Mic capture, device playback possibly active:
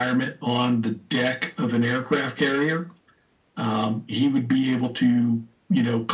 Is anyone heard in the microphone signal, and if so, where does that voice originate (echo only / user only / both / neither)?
echo only